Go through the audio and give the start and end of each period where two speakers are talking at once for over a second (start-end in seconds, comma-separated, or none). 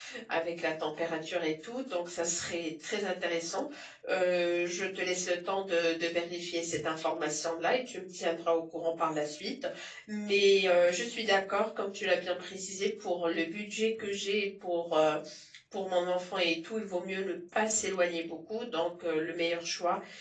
none